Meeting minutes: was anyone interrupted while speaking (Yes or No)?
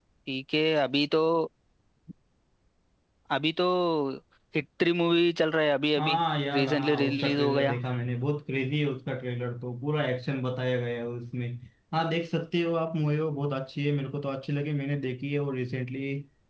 Yes